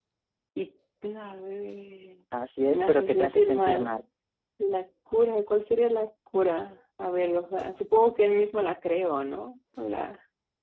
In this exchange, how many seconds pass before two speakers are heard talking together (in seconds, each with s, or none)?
2.7 s